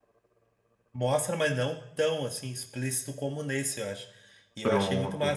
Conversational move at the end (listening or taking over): listening